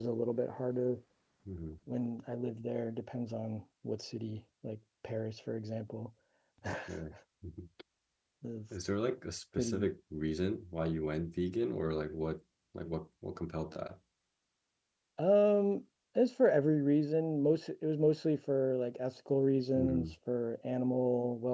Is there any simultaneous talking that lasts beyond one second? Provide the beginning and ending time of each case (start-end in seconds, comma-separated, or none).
none